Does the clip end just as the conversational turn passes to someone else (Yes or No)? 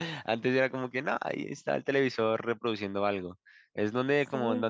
No